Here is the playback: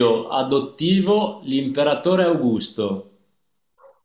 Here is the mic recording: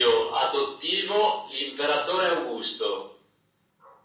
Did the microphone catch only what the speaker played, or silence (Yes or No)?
Yes